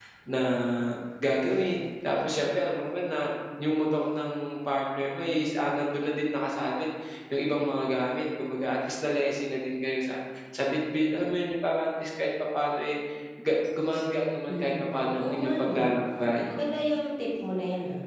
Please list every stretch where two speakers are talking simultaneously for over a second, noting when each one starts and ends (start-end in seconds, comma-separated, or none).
14.5-15.9